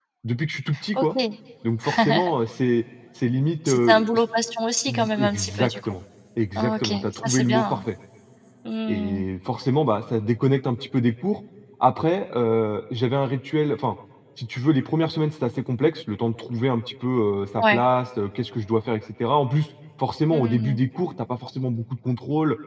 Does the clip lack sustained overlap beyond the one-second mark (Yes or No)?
No